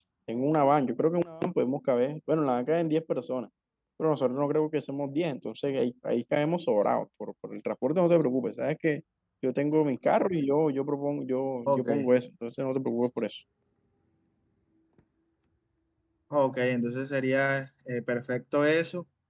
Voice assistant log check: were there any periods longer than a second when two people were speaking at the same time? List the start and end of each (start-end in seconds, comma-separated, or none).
none